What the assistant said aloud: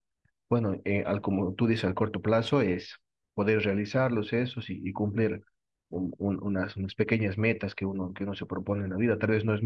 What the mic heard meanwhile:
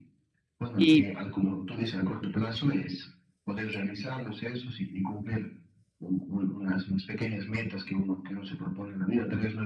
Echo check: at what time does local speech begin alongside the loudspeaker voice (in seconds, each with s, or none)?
0.8 s